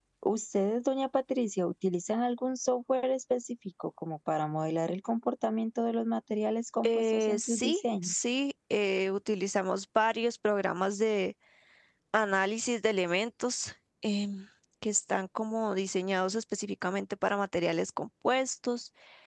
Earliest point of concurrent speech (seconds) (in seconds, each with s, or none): 6.8 s